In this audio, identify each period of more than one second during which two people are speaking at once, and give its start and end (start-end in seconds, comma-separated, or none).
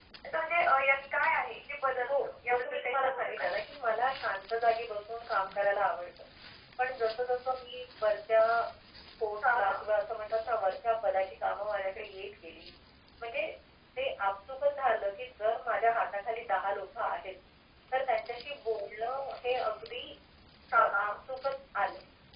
2.1-3.5